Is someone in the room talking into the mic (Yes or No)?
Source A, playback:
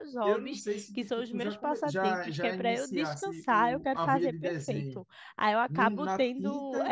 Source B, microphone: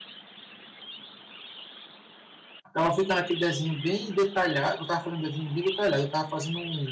Yes